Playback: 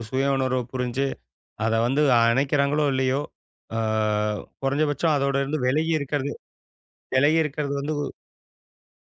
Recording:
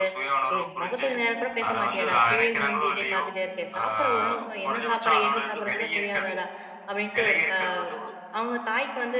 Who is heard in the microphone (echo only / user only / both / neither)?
both